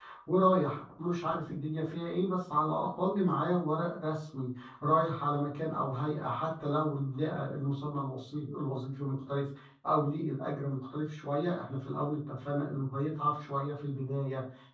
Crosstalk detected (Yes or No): No